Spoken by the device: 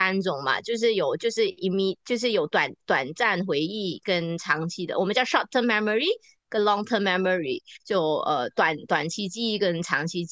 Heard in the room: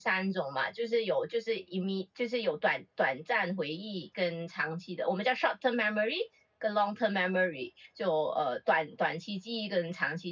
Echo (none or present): present